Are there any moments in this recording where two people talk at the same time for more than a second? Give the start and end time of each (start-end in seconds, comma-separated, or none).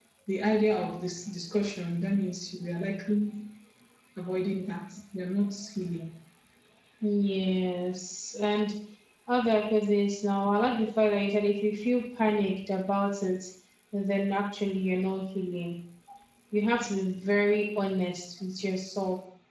none